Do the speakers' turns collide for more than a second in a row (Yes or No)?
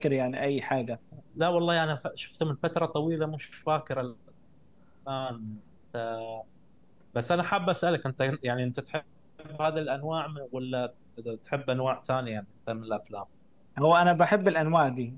No